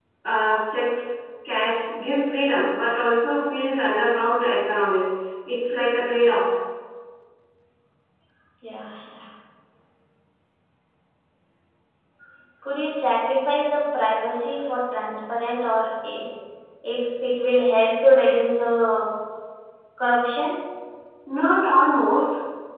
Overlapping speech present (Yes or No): No